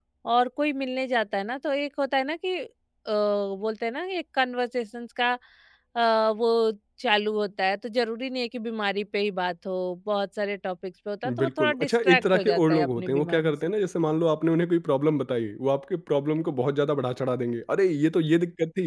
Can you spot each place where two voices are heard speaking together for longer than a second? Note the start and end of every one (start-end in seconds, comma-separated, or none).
11.3-13.5